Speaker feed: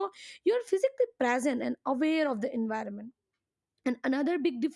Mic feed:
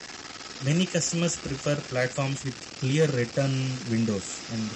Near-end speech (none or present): present